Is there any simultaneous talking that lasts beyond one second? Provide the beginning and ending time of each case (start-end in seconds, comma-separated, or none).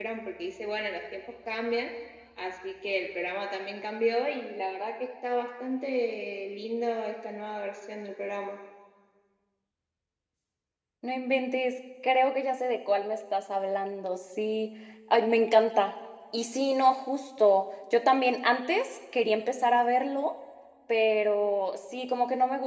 none